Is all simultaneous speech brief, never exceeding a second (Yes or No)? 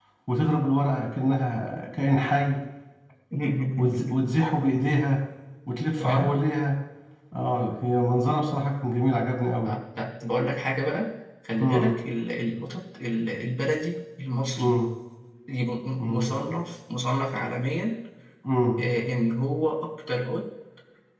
Yes